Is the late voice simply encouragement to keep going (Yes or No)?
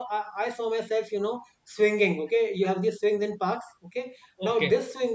Yes